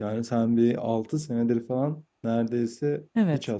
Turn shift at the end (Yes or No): Yes